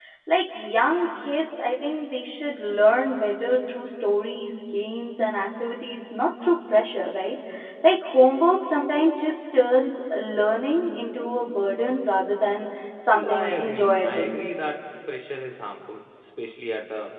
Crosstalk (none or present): present